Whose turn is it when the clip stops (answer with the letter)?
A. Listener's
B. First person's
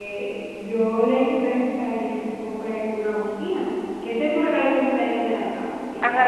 A